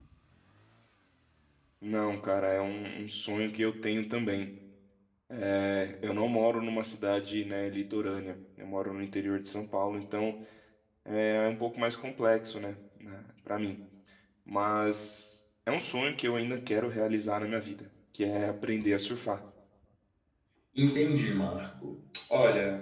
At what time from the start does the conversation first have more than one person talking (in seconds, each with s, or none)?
none